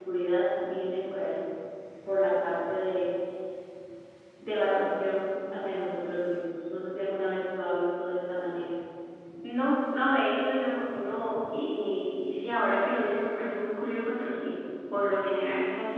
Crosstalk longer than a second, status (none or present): none